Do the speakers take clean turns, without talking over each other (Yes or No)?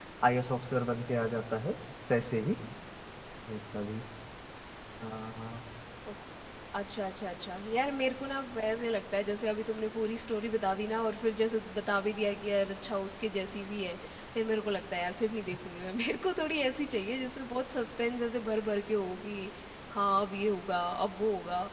Yes